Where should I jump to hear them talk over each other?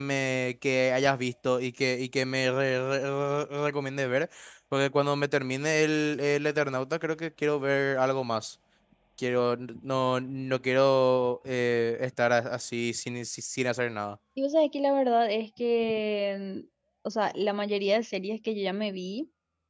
none

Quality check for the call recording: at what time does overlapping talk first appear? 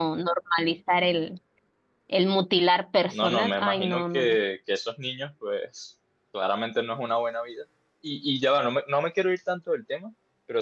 3.0 s

